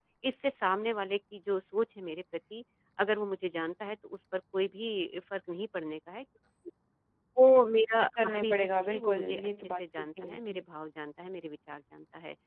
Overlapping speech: Yes, from 8.1 s

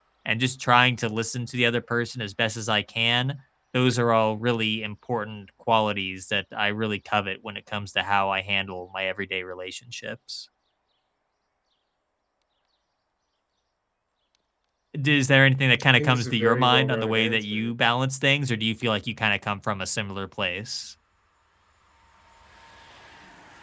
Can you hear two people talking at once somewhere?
Yes, from 15.9 s

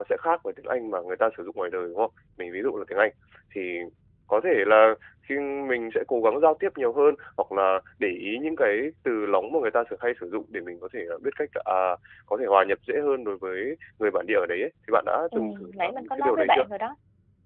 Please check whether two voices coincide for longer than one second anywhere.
Yes, from 15.3 s

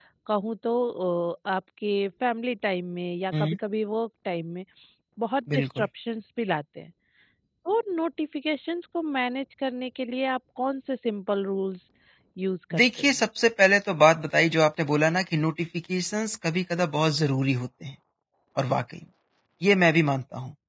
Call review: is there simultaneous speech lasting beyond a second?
No

